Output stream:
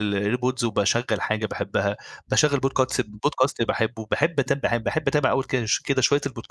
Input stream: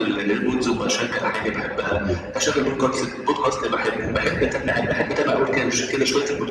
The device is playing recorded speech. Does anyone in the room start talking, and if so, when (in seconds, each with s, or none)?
1.9 s